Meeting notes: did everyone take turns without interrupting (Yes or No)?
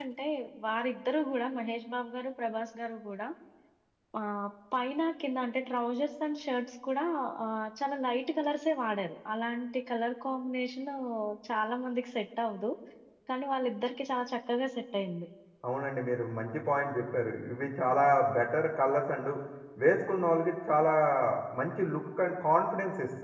Yes